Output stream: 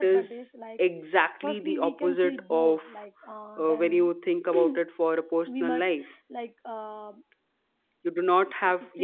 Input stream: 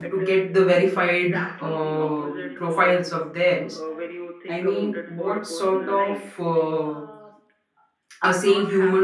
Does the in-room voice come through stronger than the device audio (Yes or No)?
Yes